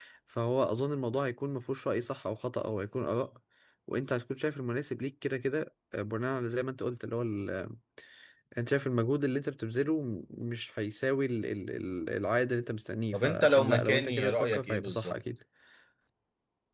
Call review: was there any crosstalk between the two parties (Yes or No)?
Yes